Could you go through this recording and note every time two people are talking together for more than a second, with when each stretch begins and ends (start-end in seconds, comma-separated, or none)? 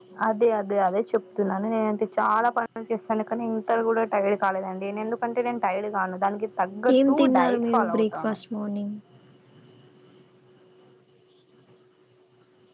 6.9-8.3